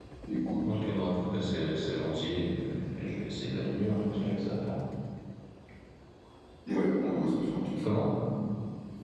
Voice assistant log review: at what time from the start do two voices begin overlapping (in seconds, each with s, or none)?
none